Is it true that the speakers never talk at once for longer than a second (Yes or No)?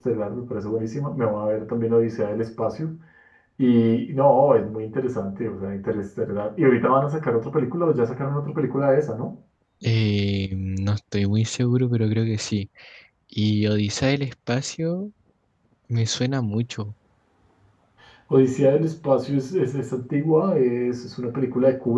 Yes